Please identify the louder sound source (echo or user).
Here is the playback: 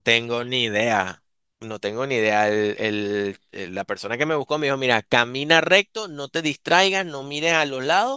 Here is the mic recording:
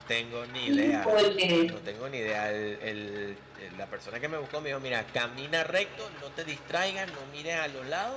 user